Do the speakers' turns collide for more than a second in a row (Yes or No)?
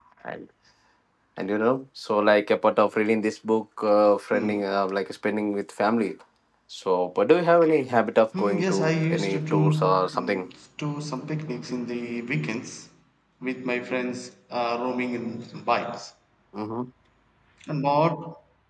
Yes